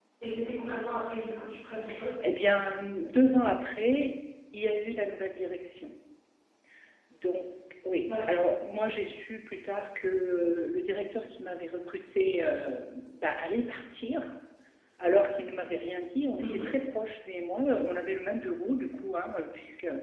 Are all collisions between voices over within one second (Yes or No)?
Yes